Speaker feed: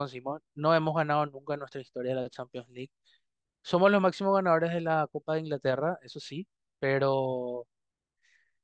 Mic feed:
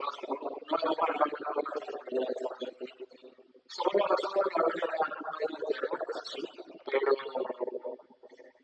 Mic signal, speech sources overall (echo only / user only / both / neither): echo only